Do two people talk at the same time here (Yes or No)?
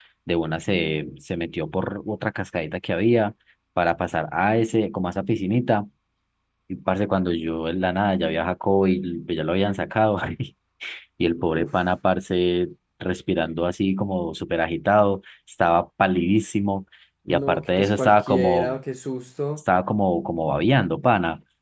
Yes